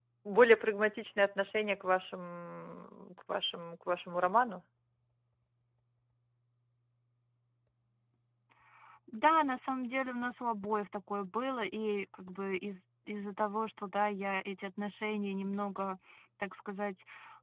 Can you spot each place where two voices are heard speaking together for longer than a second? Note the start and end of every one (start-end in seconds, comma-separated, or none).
none